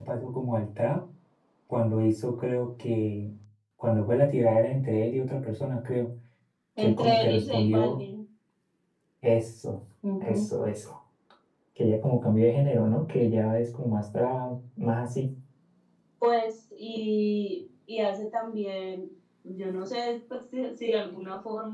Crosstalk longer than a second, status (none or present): present